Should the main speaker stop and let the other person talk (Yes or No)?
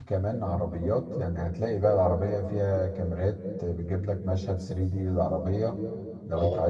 No